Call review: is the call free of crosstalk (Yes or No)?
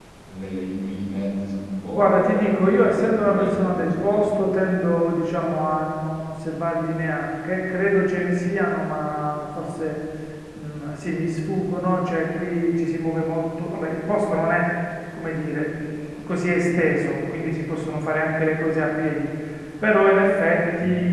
No